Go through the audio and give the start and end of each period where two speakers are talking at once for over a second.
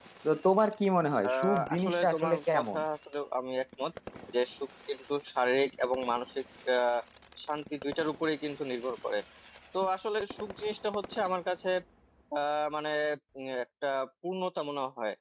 1.3-2.8

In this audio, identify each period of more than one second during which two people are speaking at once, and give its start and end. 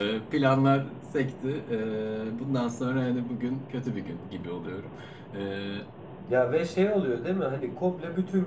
none

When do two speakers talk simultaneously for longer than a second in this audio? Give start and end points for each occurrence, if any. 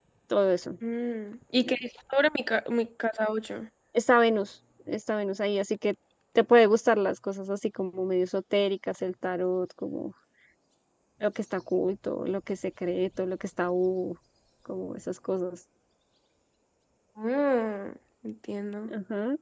none

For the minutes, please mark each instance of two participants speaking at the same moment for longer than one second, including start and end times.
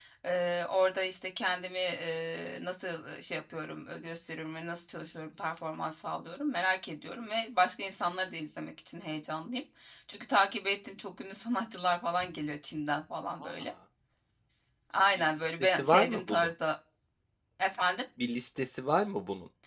15.2-16.5

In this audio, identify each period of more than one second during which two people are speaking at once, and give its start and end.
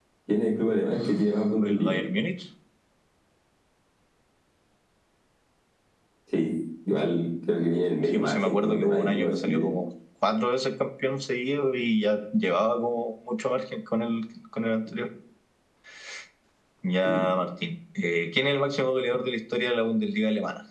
8.1-9.7

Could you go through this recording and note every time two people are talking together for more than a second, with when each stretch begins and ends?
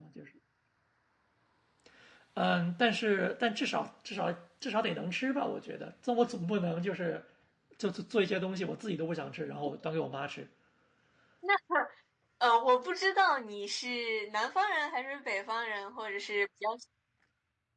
none

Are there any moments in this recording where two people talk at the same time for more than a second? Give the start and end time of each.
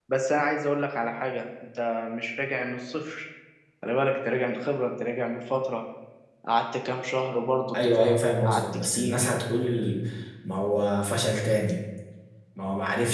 7.7-9.3

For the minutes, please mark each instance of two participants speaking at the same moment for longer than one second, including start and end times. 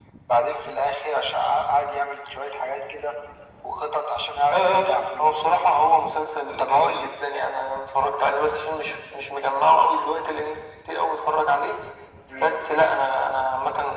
4.5-5.7

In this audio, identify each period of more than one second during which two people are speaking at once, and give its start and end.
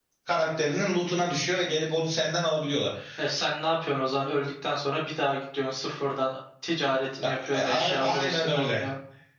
7.4-8.8

